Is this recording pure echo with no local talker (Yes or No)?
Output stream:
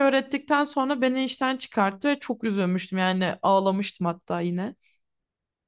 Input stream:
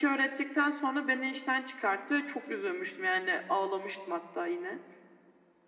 Yes